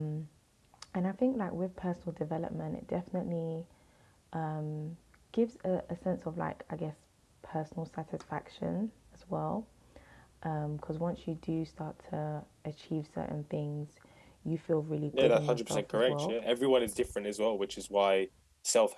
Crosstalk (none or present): present